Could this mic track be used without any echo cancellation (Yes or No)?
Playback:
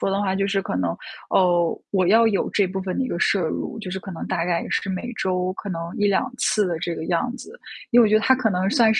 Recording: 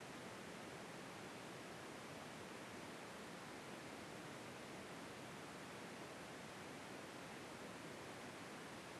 Yes